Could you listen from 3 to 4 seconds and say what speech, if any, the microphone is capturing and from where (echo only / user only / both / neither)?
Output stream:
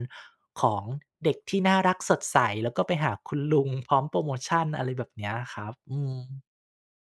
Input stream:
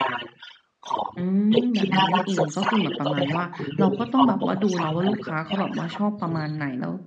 both